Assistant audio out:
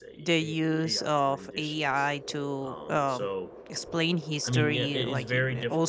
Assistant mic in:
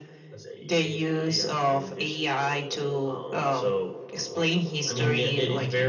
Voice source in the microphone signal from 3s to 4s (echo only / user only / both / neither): echo only